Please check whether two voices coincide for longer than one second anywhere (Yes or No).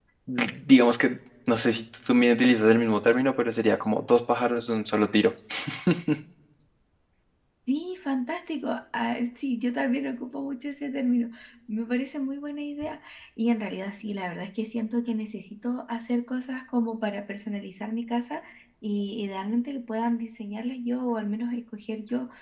No